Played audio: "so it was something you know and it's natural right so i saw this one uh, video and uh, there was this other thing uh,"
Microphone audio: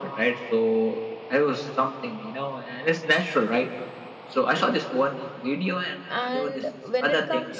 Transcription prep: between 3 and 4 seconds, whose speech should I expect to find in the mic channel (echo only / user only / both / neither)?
echo only